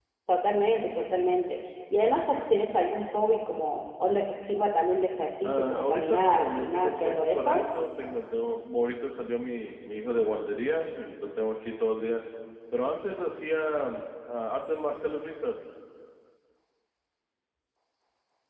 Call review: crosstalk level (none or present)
present